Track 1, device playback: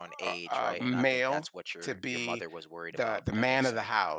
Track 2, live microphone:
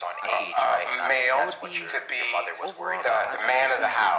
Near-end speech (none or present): present